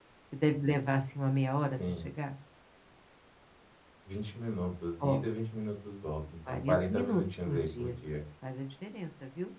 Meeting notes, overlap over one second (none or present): present